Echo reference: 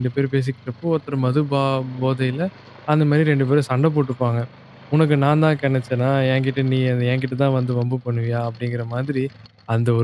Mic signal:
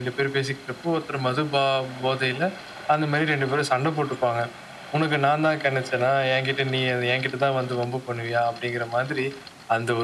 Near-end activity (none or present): none